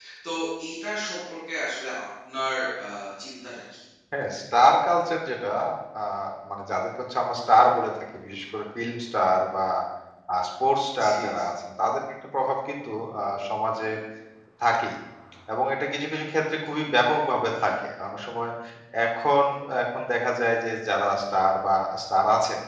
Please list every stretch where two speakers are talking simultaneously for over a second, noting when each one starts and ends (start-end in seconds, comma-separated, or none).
none